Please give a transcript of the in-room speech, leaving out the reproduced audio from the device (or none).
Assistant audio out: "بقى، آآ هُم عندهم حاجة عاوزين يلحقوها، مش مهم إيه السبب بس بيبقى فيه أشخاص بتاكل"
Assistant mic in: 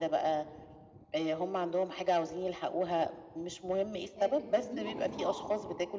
آآ، بتسميها إيقاع،